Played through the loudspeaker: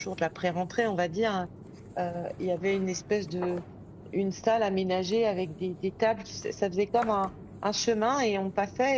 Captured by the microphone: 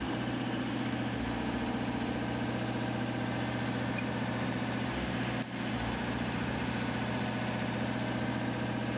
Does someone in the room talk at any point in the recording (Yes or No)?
No